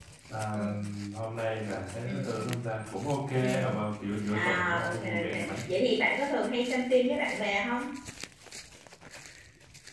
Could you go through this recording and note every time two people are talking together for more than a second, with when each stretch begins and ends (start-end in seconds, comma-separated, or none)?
4.3-5.6